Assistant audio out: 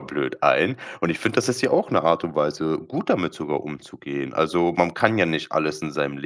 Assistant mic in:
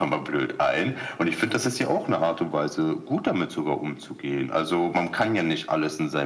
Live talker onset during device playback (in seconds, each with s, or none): none